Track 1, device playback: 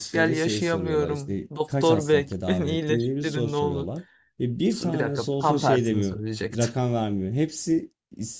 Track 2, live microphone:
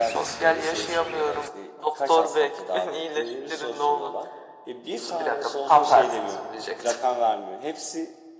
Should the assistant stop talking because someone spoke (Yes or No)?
No